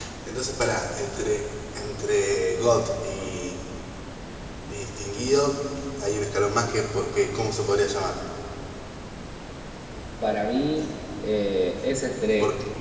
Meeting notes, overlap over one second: none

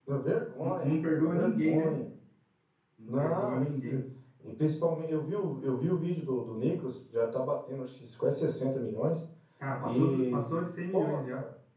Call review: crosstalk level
present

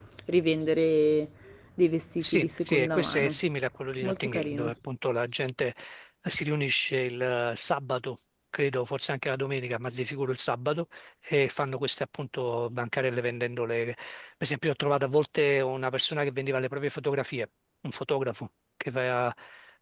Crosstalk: present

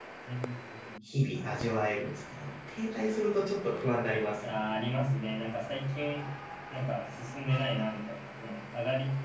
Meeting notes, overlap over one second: none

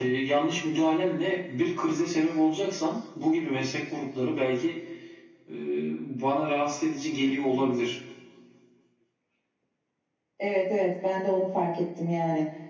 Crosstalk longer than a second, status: none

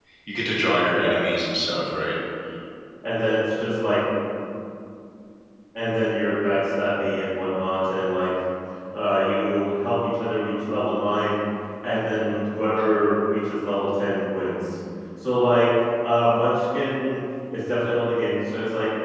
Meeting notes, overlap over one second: none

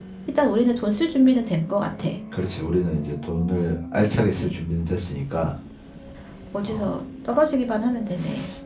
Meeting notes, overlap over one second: none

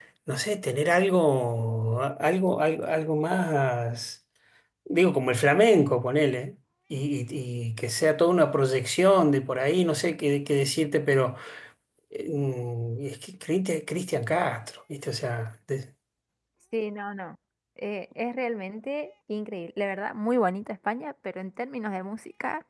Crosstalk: none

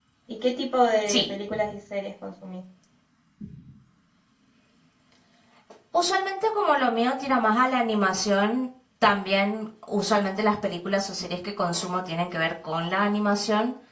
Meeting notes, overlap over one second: none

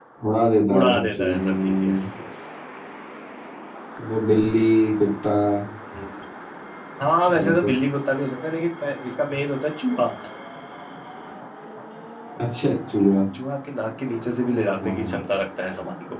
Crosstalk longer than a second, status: present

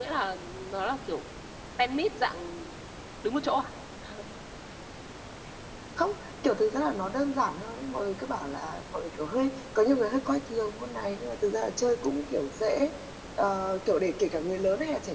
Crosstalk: none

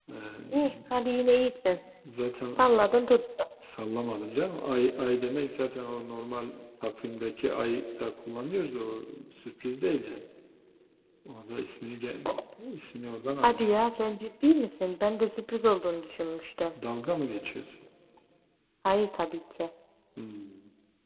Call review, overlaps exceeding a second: none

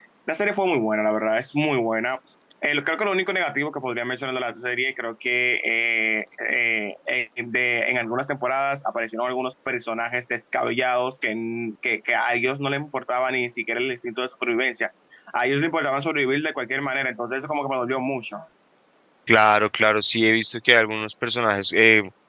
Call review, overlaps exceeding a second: none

